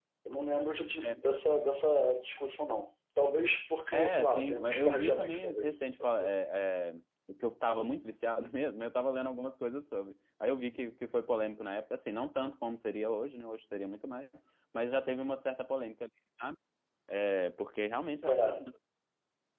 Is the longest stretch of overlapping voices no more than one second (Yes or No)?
No